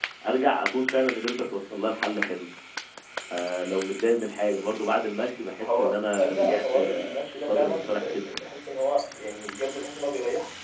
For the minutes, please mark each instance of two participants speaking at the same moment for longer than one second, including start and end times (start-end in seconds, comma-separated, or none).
5.6-8.2